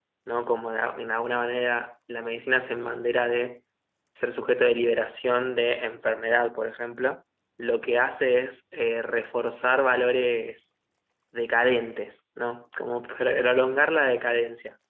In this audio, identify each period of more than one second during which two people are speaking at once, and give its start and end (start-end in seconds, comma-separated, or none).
none